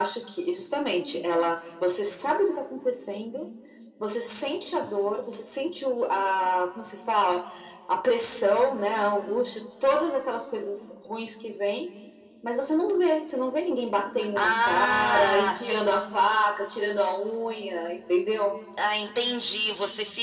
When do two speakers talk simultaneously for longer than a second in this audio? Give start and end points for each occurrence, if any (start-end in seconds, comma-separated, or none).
14.4-15.6